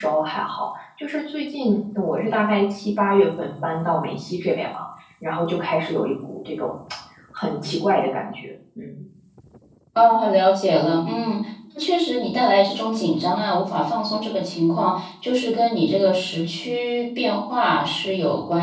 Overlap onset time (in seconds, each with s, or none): none